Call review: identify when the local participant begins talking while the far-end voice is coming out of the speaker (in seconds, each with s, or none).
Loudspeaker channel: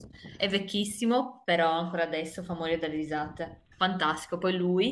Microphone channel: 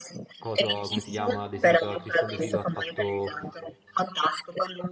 0.4 s